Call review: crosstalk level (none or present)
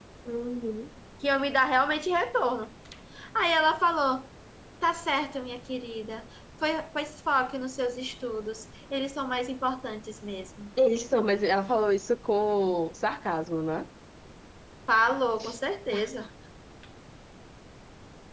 none